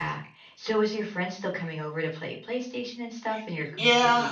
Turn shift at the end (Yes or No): Yes